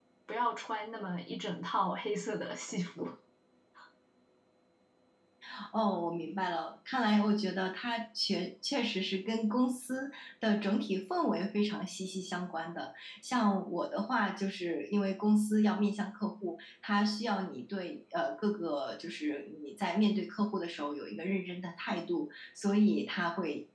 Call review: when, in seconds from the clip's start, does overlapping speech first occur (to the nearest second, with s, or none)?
none